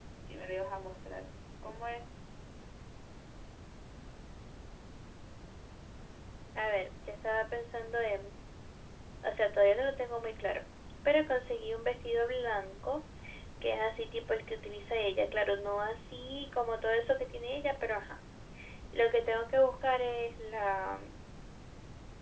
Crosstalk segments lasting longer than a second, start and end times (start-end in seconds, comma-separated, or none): none